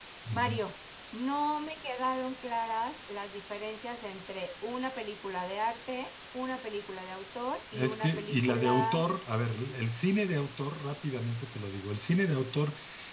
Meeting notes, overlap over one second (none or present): present